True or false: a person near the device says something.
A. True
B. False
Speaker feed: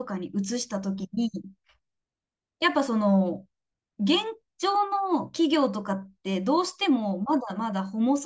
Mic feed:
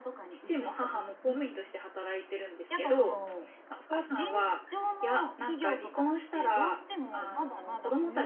A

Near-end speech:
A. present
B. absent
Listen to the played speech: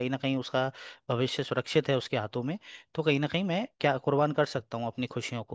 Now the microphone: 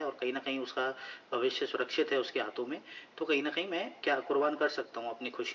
B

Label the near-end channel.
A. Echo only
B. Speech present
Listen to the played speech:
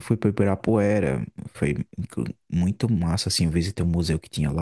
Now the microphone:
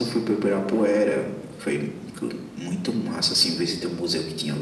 A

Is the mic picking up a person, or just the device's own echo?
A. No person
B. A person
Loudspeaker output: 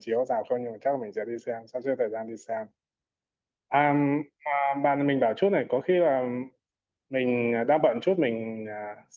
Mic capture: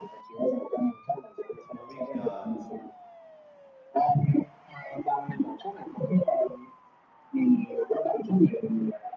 B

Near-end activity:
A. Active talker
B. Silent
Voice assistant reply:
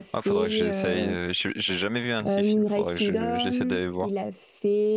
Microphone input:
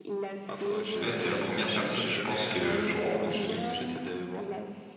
A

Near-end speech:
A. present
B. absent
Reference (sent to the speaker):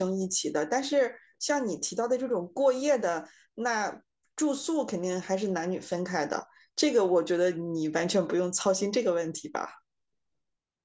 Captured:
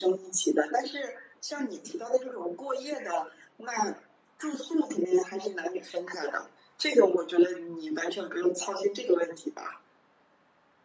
B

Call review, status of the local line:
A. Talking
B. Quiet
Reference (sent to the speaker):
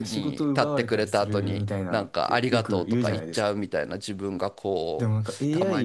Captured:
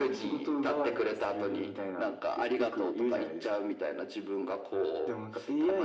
B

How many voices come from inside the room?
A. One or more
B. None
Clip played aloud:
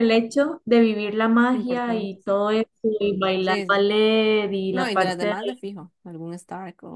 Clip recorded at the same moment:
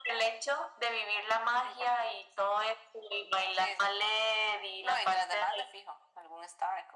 B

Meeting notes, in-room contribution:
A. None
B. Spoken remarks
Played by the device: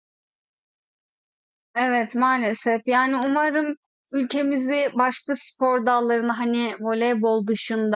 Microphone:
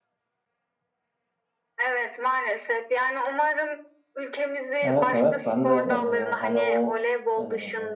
B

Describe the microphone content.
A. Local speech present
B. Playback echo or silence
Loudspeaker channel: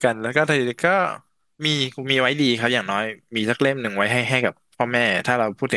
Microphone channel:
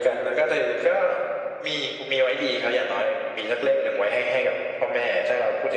B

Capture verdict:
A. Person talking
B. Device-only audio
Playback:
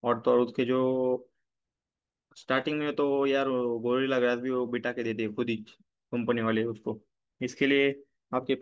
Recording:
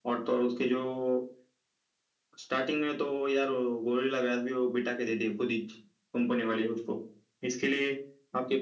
B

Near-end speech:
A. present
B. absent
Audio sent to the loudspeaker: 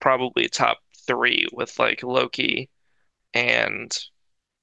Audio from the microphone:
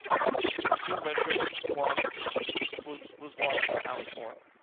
A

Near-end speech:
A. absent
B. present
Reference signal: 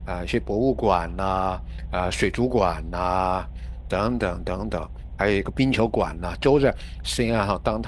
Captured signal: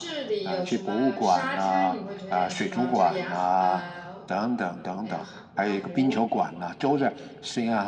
B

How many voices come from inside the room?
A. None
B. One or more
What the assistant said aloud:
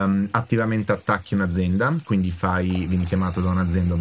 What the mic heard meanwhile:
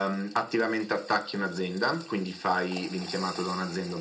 A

